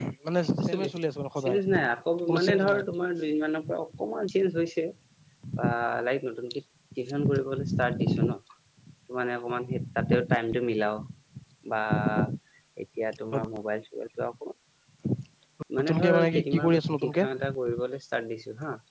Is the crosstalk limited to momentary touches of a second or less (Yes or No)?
No